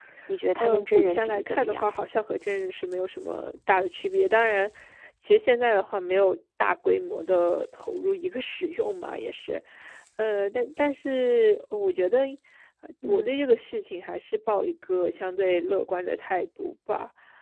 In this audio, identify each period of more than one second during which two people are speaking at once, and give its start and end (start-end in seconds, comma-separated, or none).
0.6-1.9